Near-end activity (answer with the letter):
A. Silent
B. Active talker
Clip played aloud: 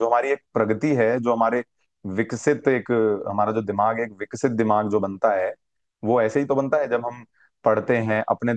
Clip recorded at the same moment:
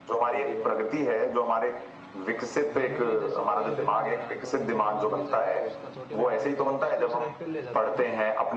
B